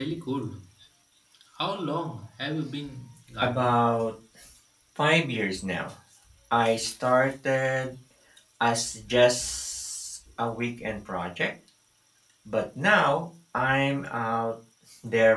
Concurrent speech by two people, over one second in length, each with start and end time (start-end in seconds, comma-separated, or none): none